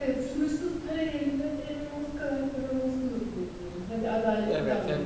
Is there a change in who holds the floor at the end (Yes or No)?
Yes